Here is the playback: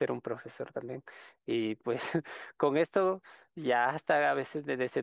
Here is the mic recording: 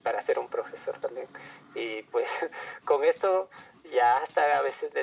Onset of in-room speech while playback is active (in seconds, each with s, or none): none